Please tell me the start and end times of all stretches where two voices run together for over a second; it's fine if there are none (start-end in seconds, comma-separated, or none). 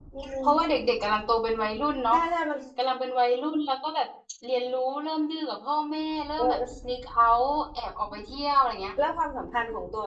none